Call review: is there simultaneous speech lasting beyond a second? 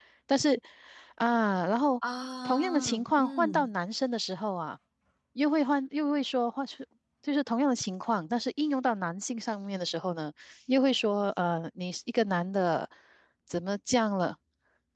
Yes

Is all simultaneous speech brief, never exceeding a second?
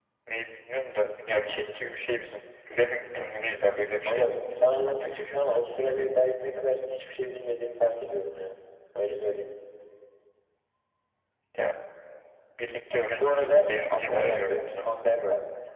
No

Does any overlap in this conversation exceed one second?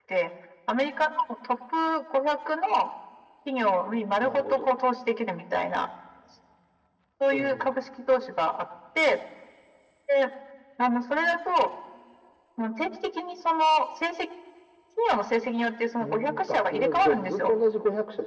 Yes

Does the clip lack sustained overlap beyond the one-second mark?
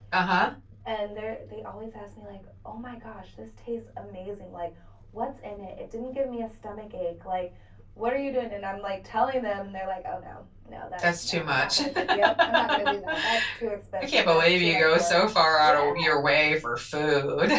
No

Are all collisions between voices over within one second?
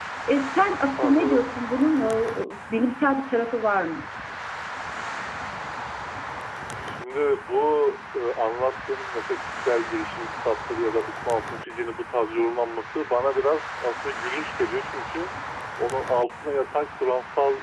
Yes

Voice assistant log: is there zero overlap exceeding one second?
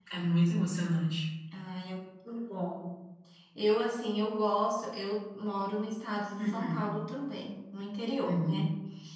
Yes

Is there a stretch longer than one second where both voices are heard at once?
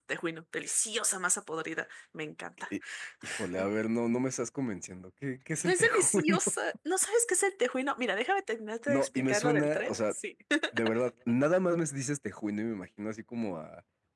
Yes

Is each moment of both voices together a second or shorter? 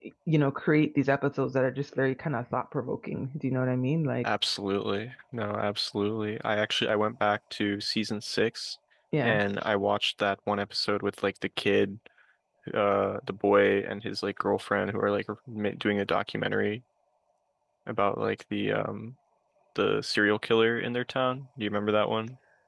Yes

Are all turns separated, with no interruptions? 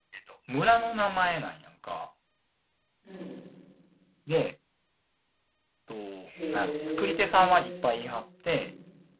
No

